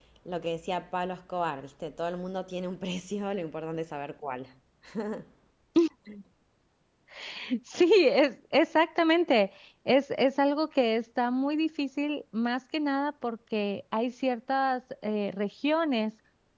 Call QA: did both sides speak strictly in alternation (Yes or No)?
Yes